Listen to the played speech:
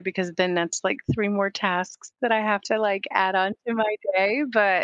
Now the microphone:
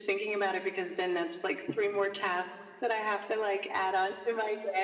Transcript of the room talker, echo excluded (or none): none